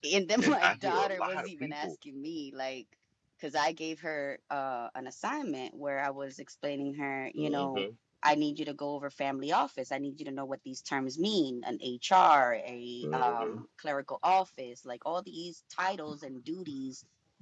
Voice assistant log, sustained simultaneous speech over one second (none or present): present